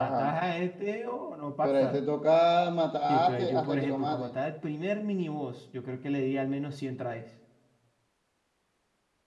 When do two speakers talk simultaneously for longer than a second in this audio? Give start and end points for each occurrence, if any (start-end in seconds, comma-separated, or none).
3.1-4.3